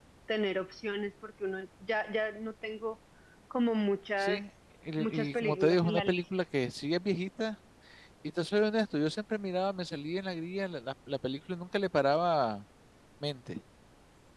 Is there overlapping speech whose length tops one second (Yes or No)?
Yes